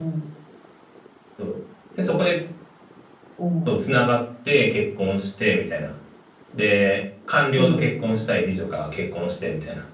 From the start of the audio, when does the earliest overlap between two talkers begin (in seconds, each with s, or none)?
7.6 s